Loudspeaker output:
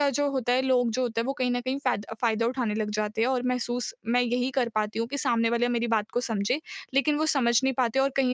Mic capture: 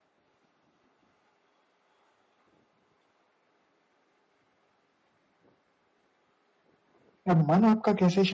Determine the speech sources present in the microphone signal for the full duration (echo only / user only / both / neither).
user only